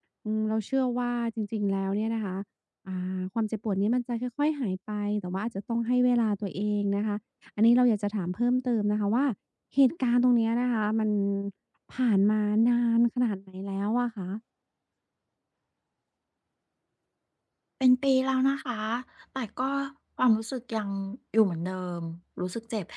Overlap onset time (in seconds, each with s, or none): none